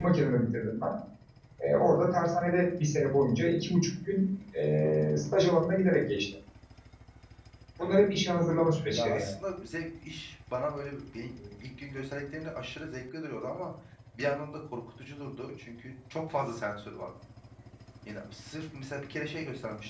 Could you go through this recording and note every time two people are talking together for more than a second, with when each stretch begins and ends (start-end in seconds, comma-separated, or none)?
none